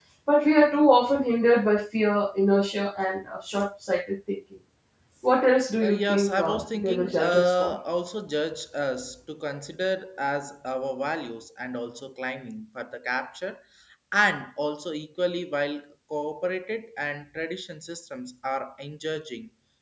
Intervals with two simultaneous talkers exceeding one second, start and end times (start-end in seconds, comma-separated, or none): 5.8-7.8